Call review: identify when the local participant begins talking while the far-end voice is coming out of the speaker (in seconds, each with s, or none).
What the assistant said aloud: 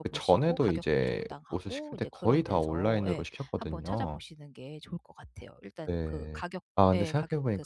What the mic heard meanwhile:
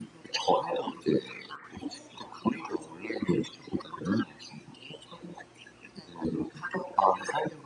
none